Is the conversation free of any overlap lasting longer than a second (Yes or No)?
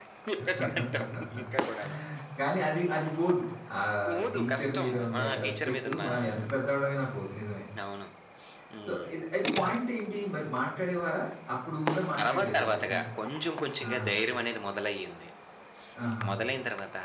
No